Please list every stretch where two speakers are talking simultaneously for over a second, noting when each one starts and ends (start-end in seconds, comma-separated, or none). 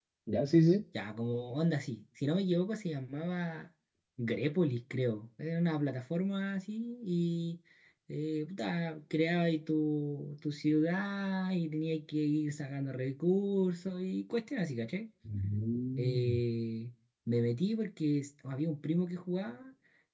none